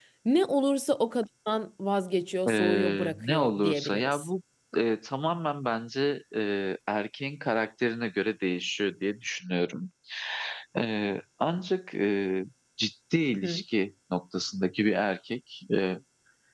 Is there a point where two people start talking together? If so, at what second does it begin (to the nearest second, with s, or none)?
2 s